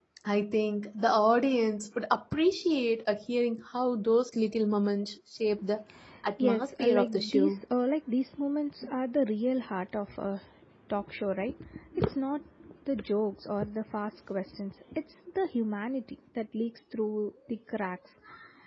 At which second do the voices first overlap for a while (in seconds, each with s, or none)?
6.4 s